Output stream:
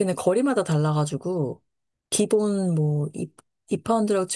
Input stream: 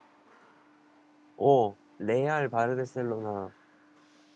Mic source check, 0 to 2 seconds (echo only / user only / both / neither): user only